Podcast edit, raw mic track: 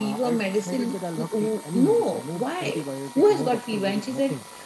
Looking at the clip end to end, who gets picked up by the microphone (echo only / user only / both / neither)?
echo only